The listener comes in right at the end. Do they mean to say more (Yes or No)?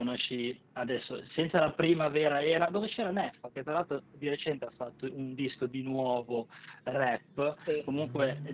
No